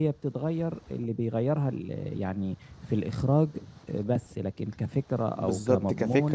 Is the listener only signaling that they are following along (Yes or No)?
No